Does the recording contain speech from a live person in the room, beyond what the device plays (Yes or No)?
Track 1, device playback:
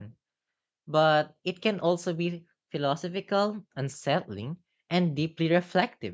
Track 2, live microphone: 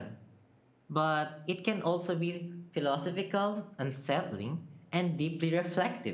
No